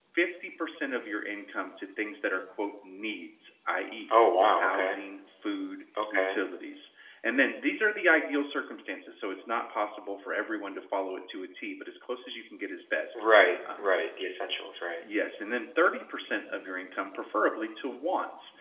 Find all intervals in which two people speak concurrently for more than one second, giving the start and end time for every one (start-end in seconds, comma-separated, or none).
none